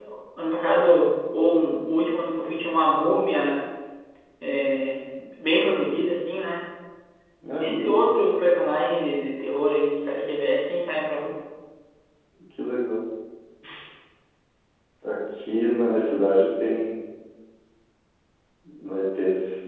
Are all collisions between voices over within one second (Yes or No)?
Yes